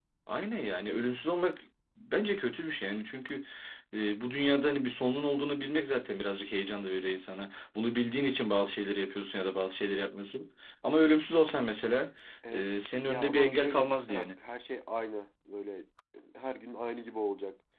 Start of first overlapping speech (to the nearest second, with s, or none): 12 s